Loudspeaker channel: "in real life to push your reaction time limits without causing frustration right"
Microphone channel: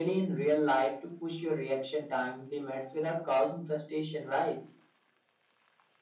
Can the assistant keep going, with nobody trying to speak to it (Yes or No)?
Yes